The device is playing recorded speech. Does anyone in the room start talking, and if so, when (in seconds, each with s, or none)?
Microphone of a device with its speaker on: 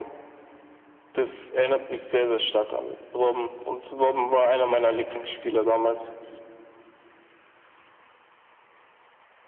none